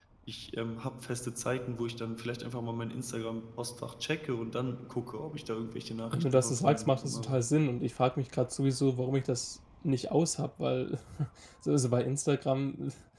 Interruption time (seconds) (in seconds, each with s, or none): 6.1 s